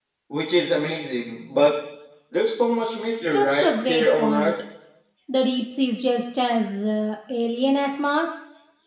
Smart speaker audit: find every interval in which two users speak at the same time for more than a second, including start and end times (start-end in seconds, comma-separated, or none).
3.3-4.5